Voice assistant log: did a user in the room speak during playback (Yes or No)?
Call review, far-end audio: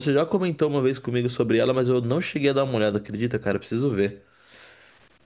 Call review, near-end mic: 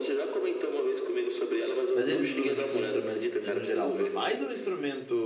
Yes